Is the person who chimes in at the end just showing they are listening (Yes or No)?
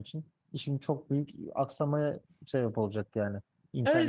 No